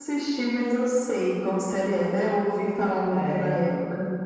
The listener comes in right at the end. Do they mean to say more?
Yes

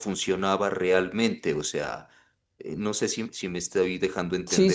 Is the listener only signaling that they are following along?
No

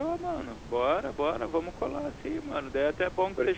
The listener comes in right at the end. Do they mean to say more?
No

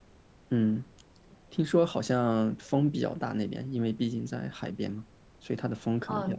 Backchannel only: No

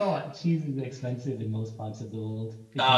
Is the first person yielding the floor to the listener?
Yes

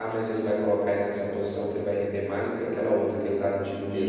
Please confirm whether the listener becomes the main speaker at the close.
Yes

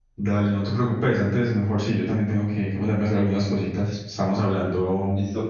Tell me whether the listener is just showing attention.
No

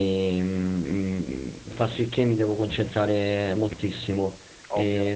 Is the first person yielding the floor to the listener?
No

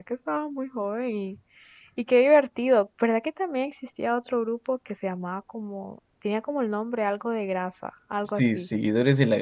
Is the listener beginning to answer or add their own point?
Yes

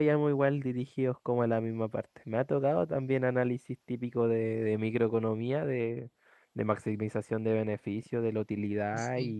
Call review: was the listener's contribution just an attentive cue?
Yes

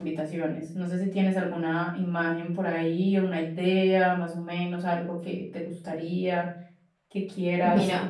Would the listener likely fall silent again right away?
No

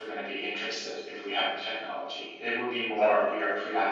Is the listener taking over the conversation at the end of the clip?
No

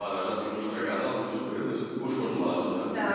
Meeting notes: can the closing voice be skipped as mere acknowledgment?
No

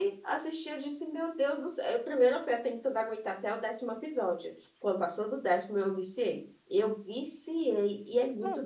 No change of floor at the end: Yes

